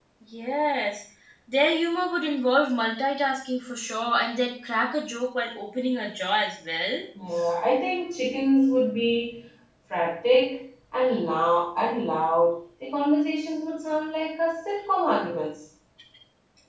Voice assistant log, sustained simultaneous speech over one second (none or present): none